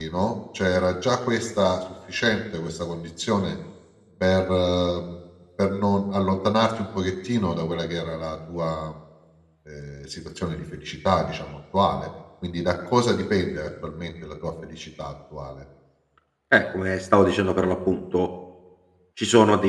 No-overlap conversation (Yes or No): Yes